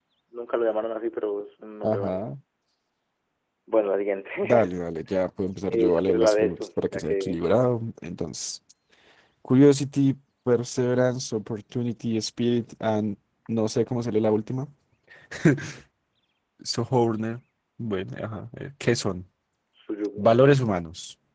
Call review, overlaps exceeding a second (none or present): present